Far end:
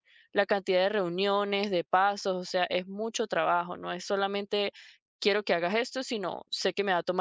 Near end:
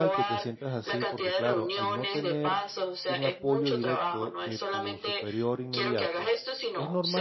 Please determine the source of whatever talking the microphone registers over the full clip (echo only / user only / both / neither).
both